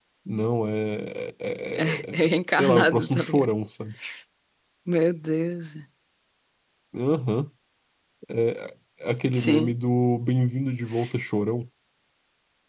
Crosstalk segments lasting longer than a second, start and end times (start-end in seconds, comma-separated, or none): 1.8-3.5